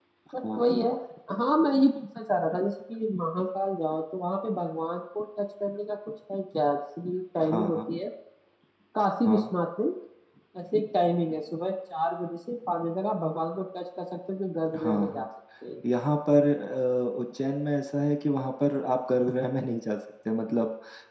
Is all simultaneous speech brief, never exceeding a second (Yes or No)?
Yes